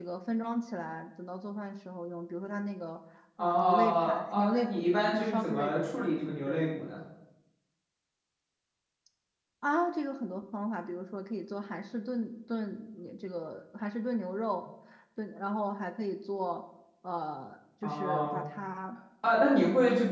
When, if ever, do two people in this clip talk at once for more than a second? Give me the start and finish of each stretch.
3.4-5.7

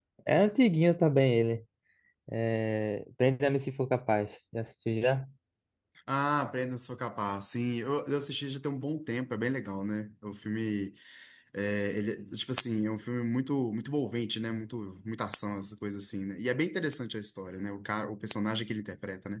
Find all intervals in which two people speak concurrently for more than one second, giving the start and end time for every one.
none

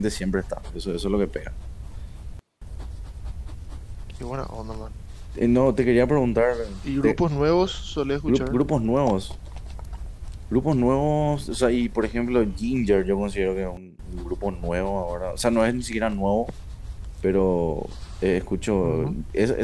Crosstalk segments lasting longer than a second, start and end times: none

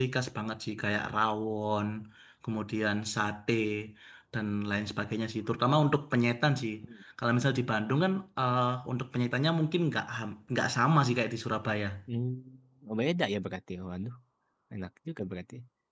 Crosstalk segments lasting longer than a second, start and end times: none

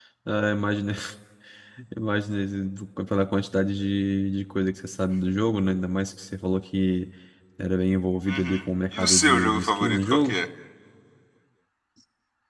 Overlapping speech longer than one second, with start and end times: 8.3-10.4

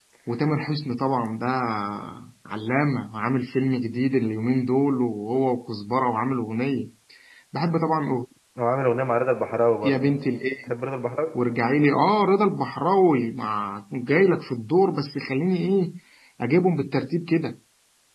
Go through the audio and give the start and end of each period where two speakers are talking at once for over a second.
none

